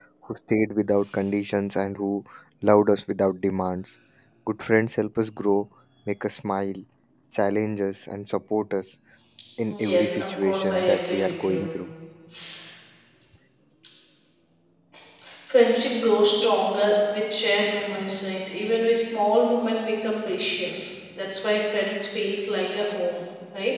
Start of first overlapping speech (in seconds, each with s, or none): 9.9 s